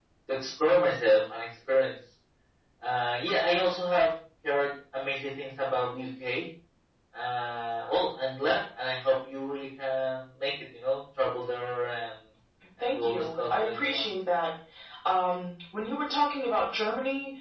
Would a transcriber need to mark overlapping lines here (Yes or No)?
Yes